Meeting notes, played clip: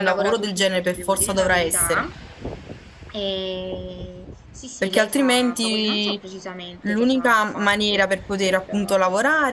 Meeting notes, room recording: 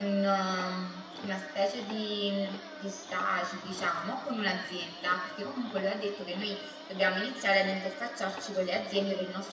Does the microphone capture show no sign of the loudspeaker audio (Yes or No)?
Yes